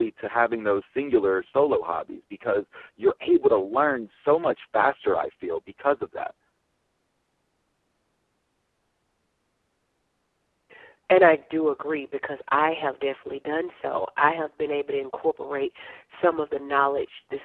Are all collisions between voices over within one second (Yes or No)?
Yes